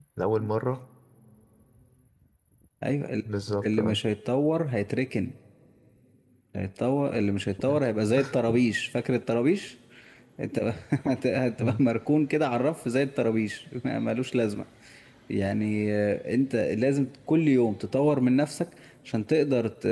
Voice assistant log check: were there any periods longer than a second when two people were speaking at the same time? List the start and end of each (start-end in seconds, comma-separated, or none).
none